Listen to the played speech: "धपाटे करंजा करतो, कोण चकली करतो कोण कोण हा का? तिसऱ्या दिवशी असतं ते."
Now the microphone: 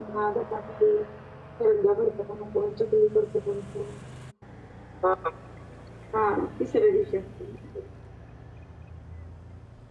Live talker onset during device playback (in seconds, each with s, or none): none